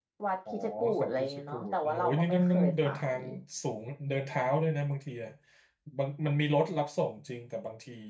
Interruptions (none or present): present